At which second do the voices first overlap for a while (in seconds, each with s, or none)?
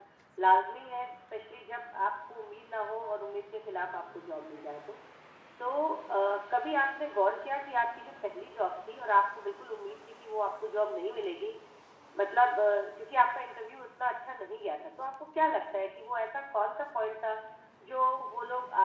none